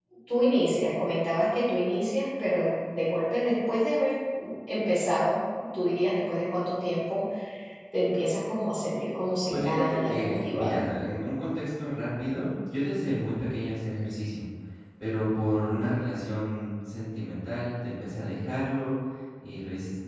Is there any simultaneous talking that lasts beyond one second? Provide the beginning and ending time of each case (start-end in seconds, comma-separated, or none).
9.5-10.8